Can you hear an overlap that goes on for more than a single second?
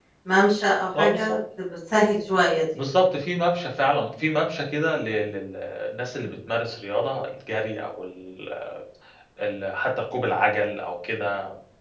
No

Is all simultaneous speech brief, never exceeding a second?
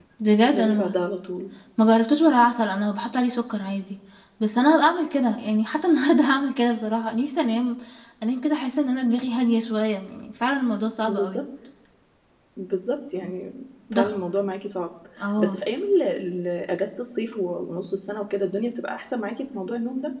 Yes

